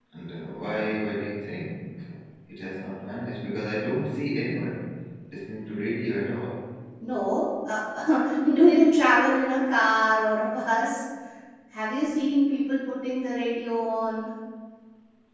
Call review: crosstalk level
none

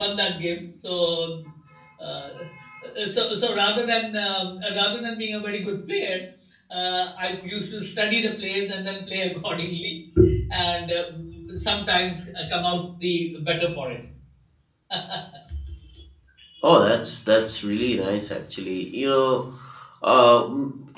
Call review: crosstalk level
none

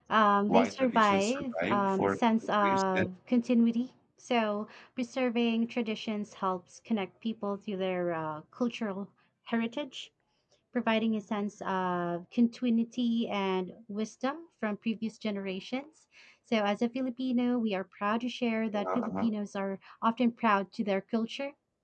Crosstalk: present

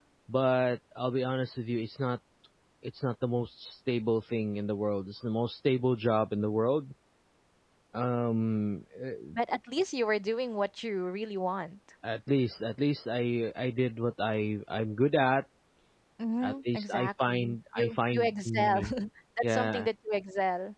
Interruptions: present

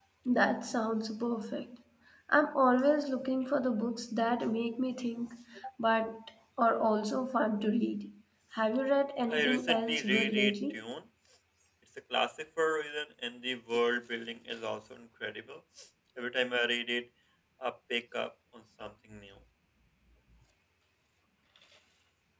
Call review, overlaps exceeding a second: present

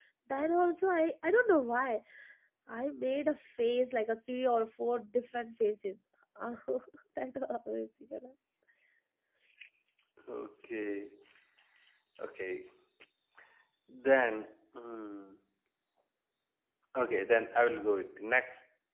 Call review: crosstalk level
none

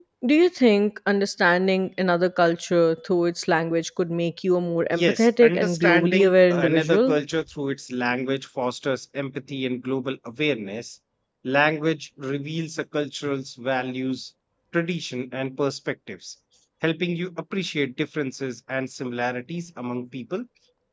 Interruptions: present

